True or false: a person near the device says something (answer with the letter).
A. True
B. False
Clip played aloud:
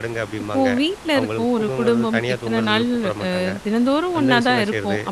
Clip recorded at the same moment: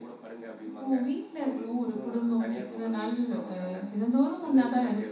B